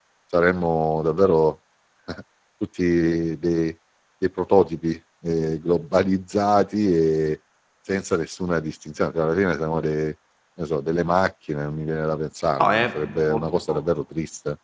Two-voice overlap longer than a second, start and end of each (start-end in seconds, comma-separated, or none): 12.6-13.8